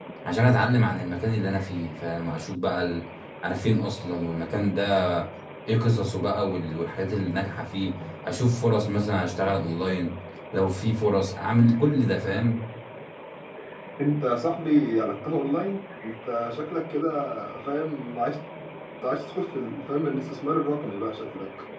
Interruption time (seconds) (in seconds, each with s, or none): none